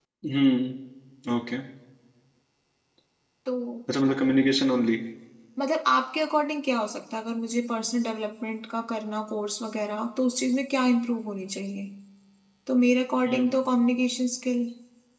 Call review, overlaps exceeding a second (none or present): none